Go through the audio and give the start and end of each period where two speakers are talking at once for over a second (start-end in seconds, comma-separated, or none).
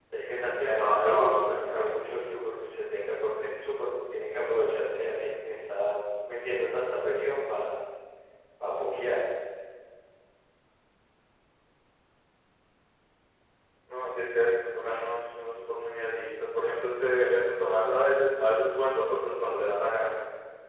0.6-2.2